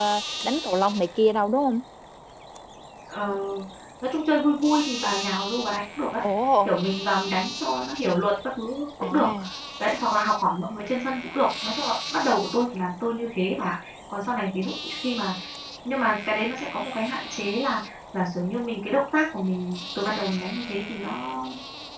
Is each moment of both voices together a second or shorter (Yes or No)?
Yes